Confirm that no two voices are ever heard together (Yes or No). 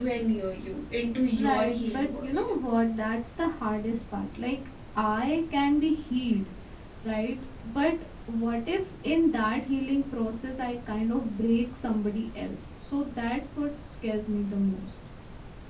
No